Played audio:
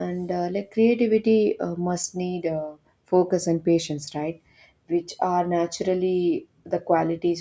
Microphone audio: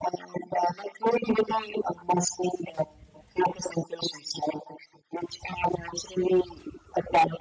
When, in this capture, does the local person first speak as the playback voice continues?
none

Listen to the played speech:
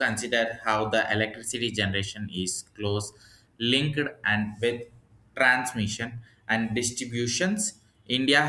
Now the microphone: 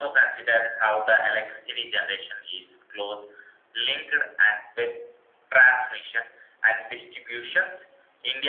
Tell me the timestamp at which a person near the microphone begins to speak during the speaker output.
none

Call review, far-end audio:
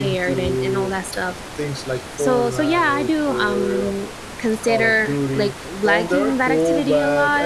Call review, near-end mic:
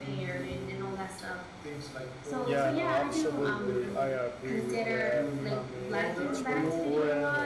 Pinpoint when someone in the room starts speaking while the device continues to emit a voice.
2 s

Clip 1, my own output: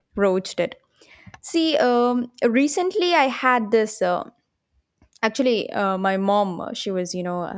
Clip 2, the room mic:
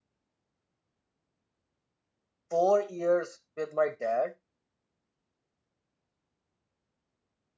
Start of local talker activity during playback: 3 s

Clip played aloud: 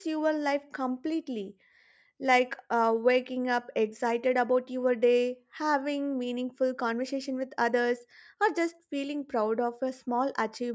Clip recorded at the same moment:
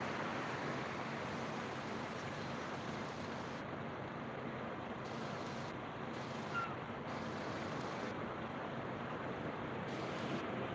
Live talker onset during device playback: none

